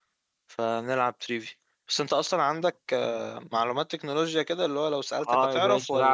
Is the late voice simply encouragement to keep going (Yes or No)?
No